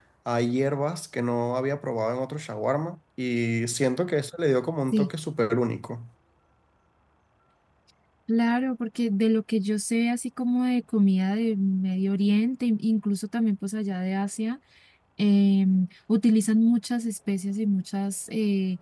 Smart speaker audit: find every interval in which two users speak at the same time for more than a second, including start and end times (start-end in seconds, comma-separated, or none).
none